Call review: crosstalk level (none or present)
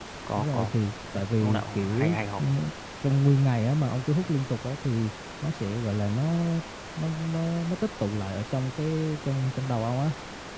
present